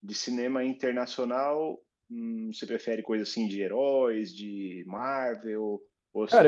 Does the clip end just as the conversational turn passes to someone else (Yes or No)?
Yes